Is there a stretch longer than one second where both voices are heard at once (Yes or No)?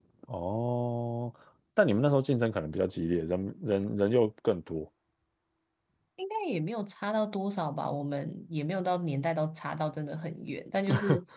No